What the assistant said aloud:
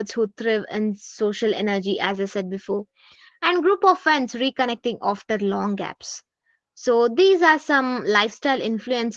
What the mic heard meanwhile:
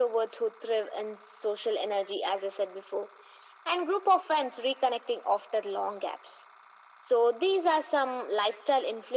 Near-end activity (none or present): none